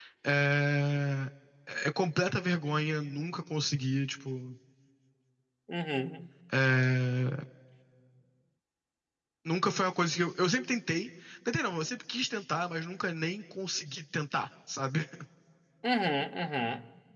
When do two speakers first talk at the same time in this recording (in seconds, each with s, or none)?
none